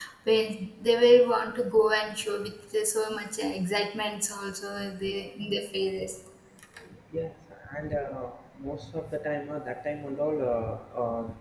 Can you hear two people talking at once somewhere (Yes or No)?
No